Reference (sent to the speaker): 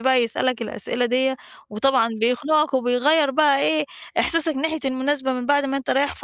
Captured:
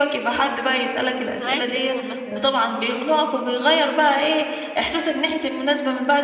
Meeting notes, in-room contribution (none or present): present